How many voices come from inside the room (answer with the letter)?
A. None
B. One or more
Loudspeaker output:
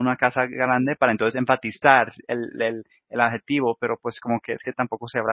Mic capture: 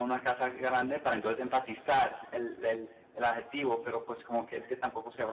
A